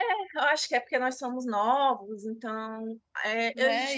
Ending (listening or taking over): taking over